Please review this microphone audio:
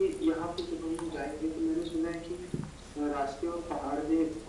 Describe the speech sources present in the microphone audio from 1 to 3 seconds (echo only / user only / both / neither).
echo only